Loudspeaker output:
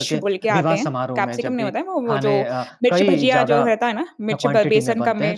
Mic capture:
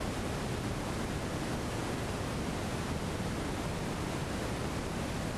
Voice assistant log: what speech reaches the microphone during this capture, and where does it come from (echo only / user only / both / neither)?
neither